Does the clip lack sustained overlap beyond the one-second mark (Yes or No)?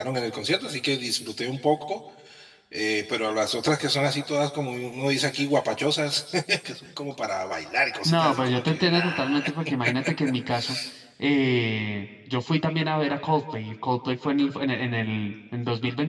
No